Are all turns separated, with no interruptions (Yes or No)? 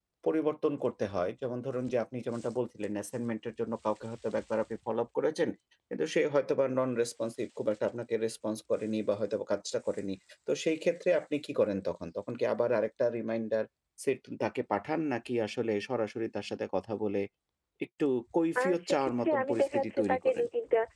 No